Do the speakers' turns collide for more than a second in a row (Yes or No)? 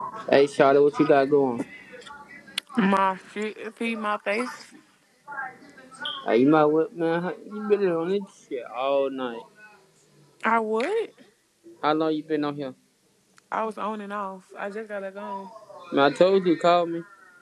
No